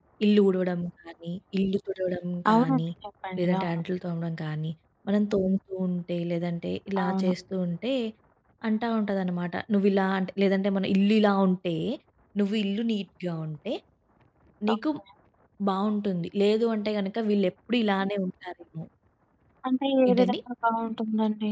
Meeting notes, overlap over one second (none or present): none